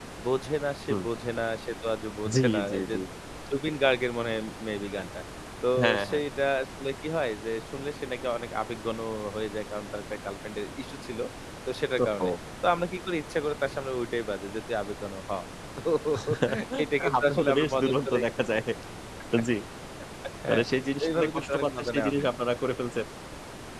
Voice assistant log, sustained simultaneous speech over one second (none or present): present